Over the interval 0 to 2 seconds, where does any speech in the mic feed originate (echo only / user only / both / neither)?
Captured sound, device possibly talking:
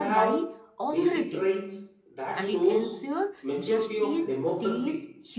both